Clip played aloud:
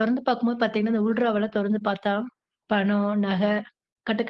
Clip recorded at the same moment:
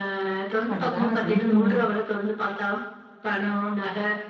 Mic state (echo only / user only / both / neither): both